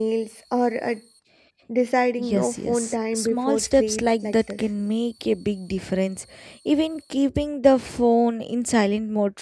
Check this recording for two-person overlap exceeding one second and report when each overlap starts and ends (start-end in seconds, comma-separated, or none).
2.2-4.6